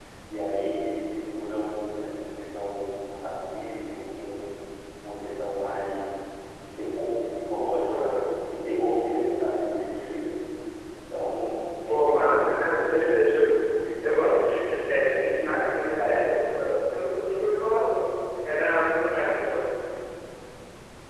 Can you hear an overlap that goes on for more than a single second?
Yes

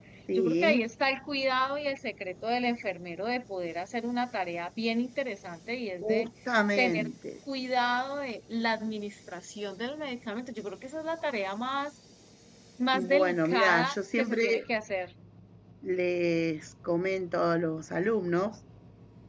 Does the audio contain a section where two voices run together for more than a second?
Yes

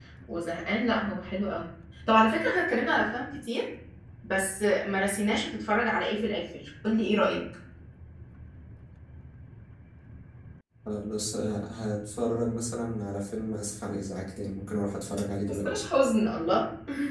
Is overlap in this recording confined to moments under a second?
Yes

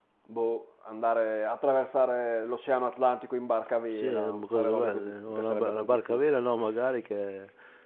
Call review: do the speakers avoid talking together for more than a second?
No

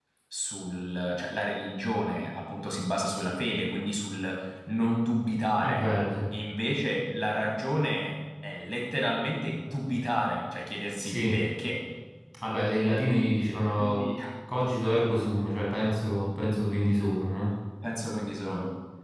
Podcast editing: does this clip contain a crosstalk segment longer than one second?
No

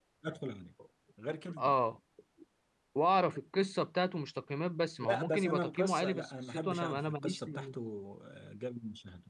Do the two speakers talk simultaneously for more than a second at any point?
Yes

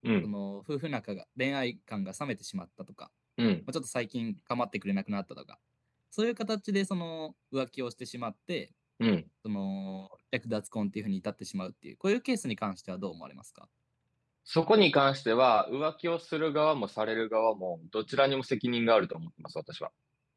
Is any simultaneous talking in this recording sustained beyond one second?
No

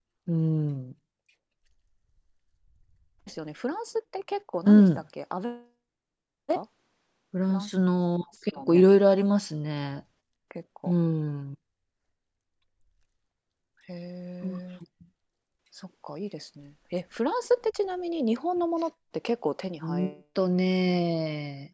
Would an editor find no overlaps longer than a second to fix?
Yes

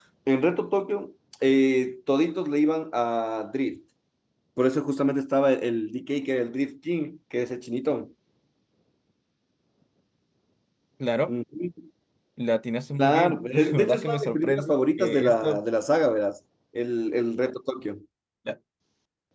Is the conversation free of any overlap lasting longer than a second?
No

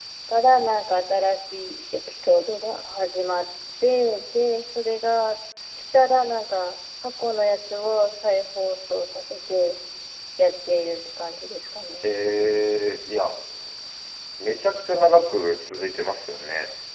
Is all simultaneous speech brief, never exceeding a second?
Yes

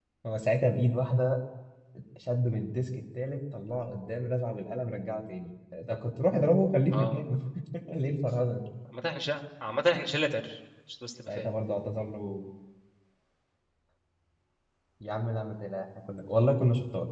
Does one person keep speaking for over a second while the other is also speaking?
No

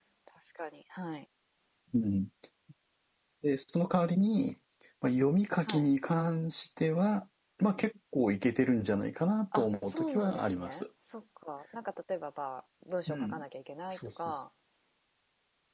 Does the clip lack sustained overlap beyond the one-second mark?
No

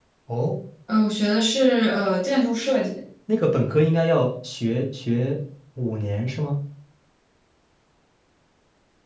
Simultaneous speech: No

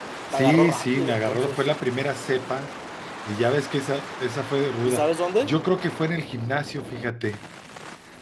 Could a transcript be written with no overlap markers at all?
No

